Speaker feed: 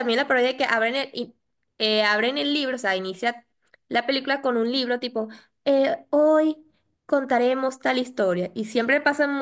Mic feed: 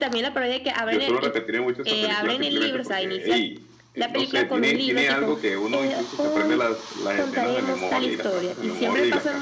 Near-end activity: present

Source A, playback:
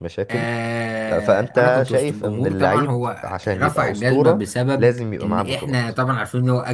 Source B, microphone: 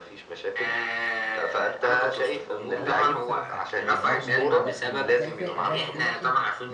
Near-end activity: present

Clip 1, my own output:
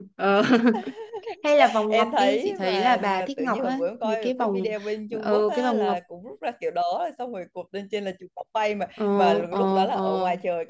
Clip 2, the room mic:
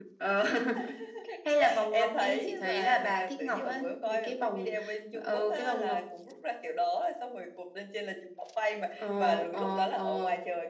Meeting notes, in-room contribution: none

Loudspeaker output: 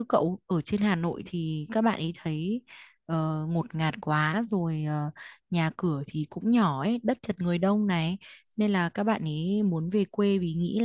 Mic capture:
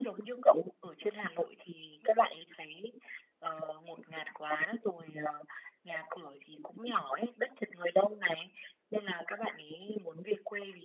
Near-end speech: none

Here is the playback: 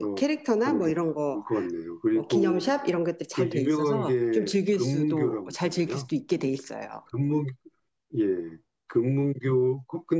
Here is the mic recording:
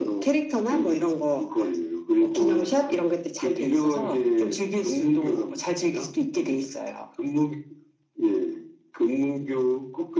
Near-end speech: none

